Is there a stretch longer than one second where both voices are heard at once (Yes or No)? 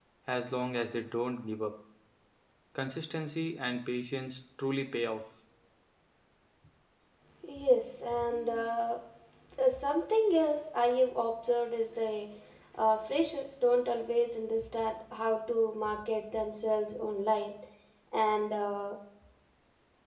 No